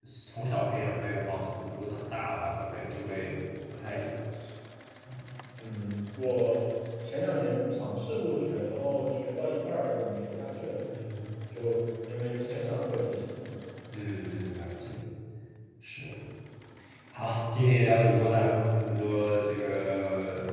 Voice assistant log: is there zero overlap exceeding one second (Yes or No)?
Yes